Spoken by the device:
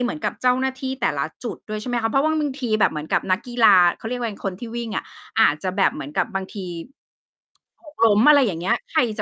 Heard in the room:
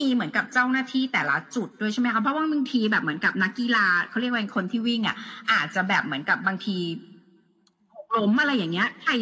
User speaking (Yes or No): No